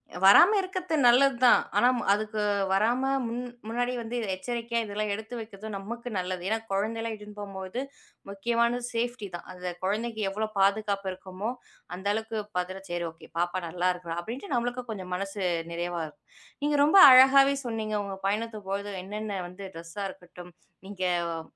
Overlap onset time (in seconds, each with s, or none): none